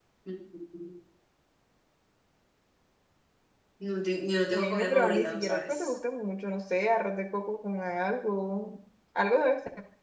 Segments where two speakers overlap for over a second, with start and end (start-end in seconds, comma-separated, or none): 4.5-5.9